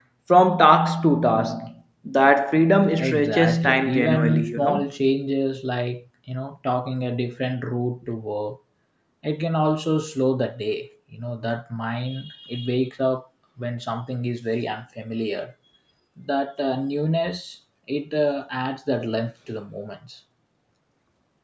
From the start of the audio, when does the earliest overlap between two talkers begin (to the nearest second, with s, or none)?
3 s